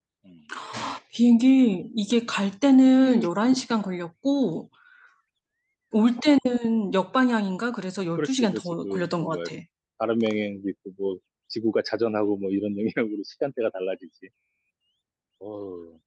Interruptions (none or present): present